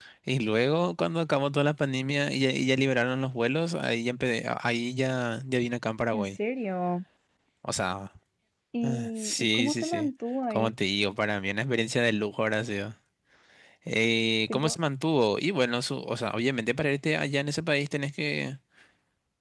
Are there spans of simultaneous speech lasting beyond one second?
Yes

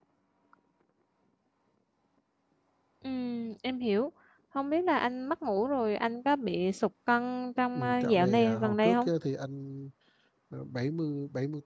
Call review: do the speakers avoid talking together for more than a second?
No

